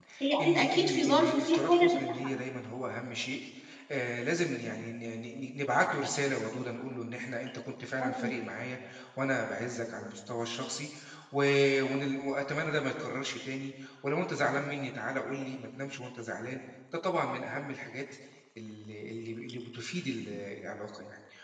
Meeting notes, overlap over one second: present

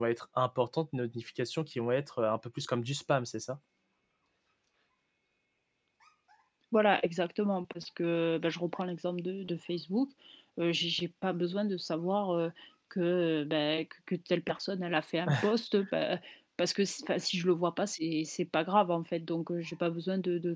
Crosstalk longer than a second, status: none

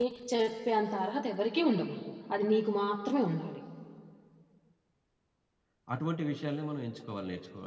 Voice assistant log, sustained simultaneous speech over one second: none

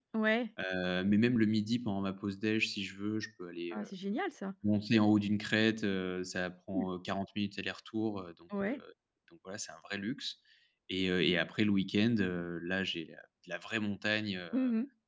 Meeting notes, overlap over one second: none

